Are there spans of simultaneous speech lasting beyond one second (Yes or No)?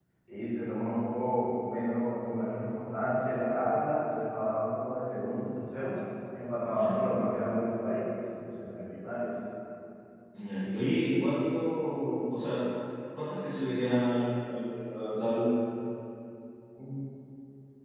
No